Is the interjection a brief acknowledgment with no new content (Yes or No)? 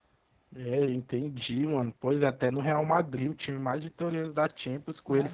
No